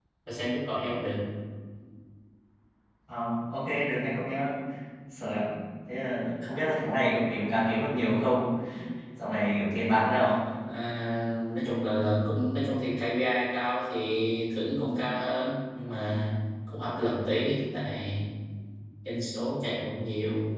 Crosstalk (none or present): none